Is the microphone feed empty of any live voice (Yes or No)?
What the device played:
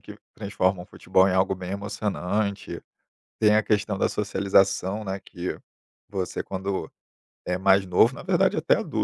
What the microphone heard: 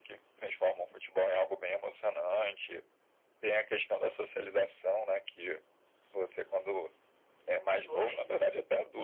No